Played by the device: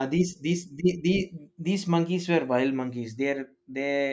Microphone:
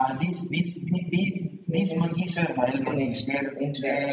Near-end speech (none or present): present